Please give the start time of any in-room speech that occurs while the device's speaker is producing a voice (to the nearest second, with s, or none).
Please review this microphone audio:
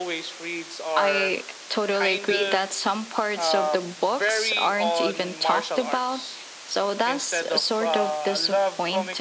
1 s